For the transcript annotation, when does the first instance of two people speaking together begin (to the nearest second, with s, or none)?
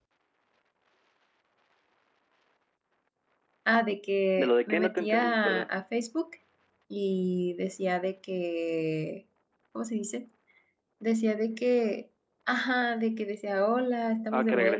4 s